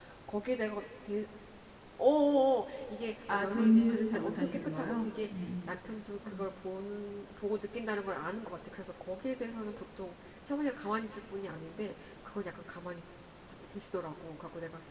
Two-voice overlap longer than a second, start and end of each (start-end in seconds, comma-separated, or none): 3.3-5.3